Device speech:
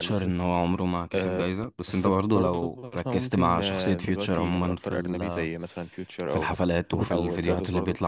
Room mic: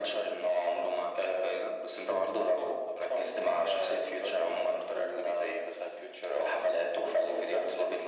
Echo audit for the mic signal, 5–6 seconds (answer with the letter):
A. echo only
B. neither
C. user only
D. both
A